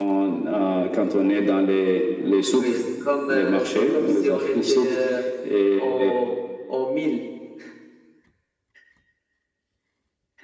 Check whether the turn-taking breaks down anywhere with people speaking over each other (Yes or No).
Yes